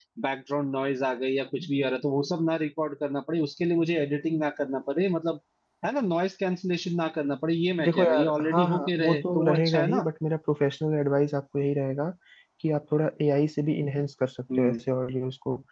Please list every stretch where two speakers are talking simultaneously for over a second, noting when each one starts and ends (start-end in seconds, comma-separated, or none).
7.8-10.1